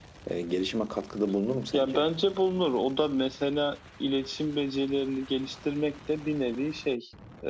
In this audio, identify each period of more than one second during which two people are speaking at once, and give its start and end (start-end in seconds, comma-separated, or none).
none